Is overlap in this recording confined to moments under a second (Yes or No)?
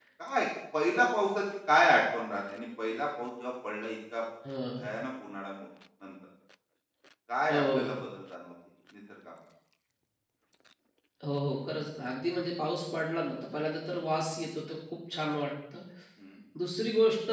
Yes